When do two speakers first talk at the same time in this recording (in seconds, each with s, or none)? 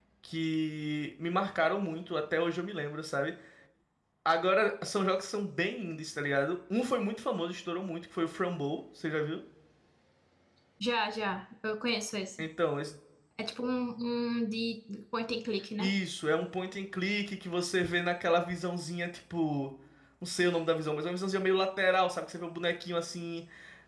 none